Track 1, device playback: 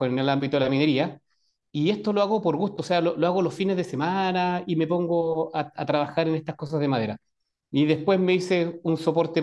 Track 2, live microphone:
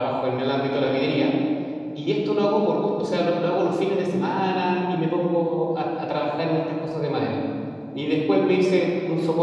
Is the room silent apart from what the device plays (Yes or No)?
Yes